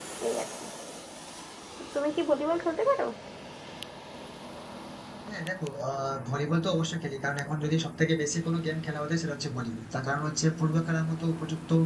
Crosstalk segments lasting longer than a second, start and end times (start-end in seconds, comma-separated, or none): none